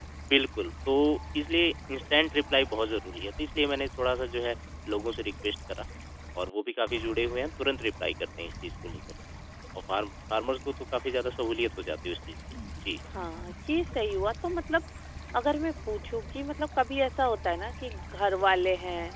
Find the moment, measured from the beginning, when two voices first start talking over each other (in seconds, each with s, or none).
none